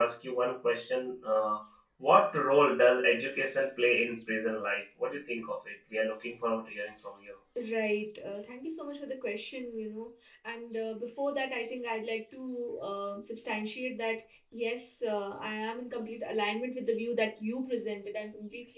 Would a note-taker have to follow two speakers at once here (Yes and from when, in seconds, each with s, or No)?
No